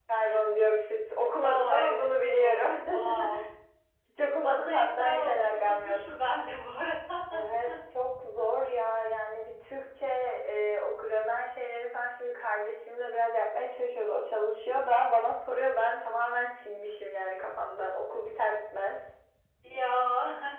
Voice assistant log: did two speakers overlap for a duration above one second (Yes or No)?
Yes